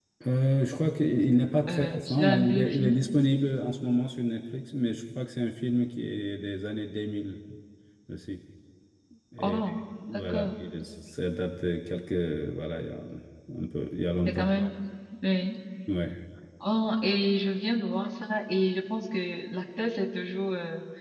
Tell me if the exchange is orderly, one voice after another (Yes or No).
No